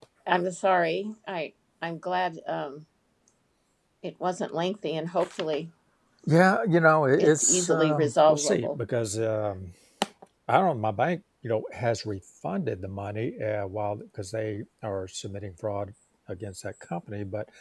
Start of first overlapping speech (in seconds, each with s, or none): 7.2 s